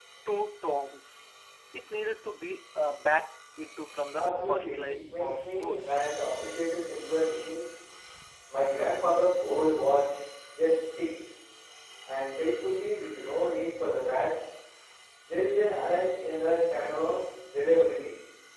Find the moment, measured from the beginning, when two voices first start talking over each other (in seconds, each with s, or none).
4.1 s